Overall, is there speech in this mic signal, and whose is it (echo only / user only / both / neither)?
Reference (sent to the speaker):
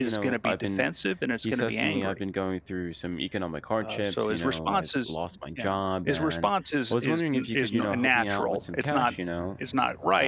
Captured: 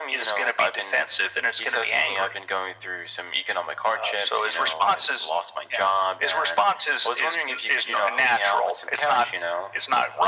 echo only